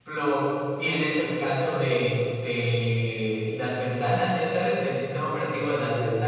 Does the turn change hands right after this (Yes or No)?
No